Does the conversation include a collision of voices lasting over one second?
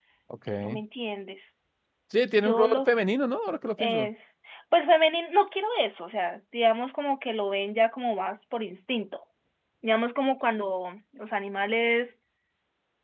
No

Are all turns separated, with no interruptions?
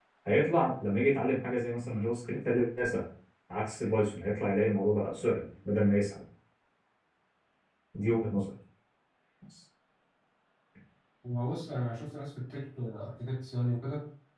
Yes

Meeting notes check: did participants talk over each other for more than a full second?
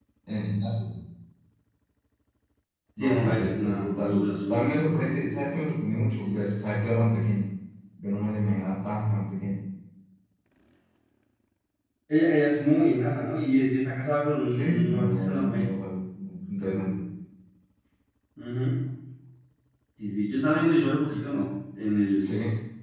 Yes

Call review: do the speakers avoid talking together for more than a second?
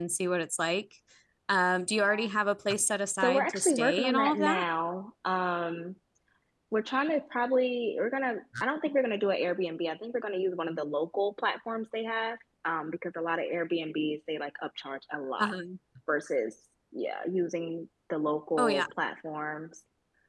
No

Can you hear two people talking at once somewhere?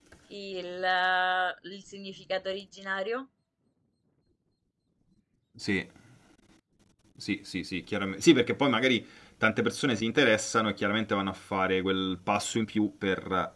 No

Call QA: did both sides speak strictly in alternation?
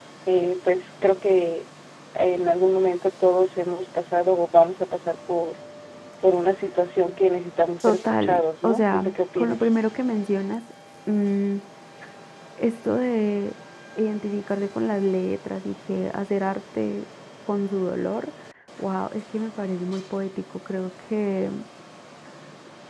No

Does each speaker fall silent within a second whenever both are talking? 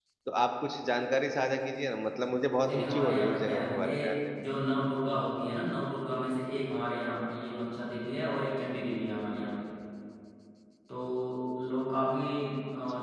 No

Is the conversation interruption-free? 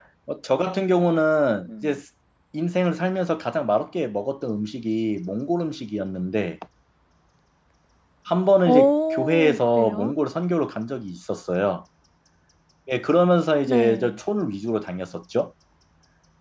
No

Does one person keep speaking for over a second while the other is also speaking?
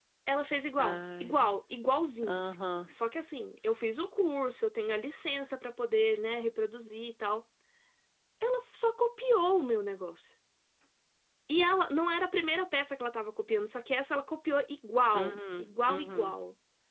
Yes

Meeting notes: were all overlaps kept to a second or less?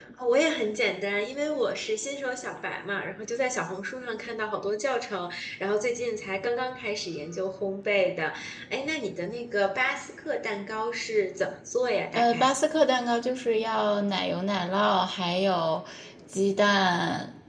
Yes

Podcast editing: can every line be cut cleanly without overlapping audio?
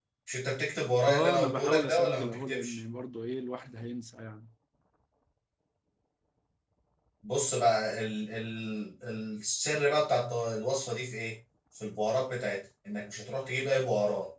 No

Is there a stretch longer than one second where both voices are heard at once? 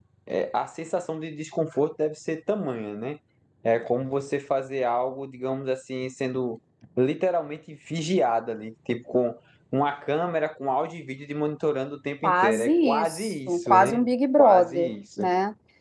Yes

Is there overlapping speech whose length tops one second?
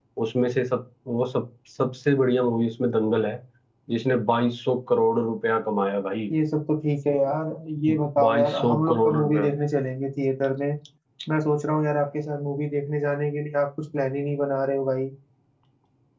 Yes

